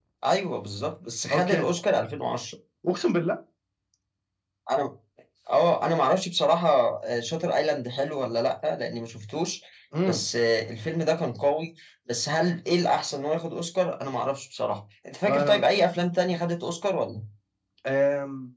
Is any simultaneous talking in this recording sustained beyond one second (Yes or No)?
No